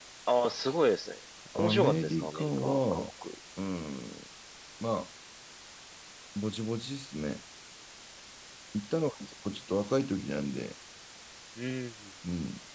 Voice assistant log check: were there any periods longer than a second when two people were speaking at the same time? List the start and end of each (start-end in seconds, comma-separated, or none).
1.6-3.1